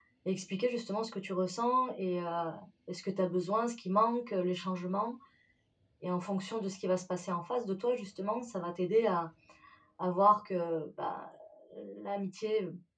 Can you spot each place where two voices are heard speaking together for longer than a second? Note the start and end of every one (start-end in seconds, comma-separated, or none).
none